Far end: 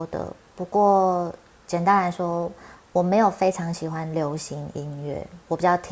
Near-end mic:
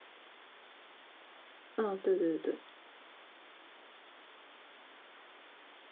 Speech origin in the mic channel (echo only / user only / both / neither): user only